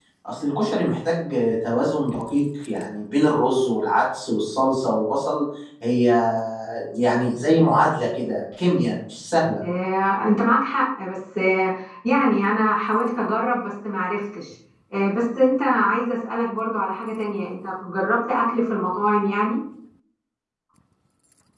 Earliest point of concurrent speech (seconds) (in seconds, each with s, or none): none